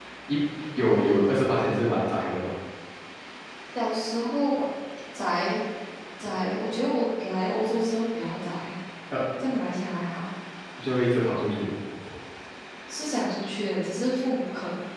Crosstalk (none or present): none